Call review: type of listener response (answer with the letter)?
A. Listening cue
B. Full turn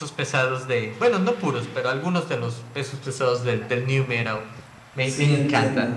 B